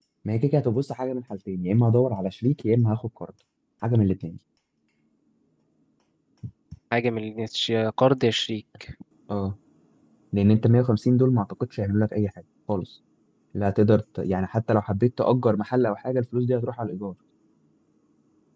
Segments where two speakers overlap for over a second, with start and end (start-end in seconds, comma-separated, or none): none